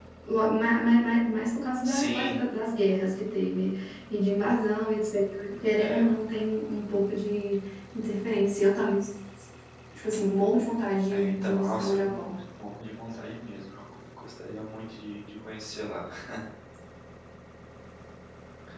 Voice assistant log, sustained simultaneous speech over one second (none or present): present